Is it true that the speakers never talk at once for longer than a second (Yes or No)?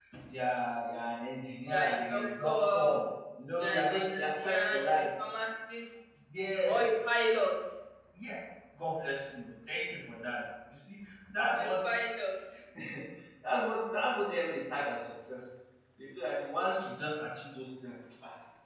No